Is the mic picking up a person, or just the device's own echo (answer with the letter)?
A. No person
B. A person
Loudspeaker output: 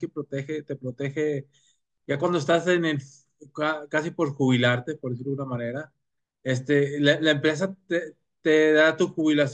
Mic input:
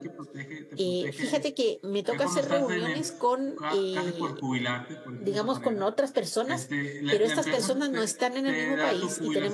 B